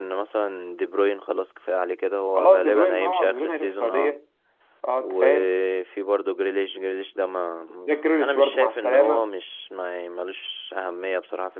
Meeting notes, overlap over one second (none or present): present